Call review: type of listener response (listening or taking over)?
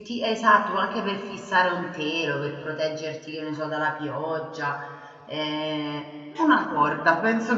listening